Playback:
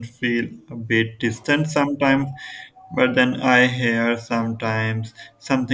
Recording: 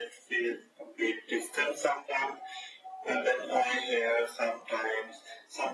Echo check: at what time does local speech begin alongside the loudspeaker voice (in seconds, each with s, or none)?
none